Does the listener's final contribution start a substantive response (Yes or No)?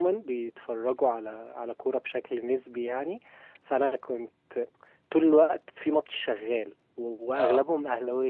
No